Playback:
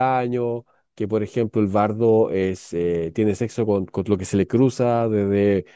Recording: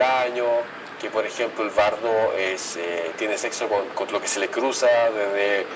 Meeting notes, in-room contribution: none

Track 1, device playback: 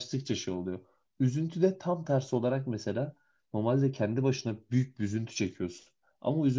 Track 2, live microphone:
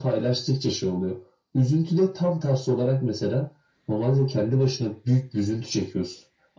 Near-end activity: none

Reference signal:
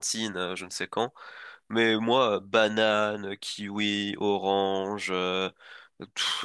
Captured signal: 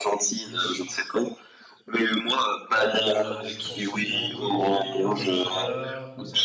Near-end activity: present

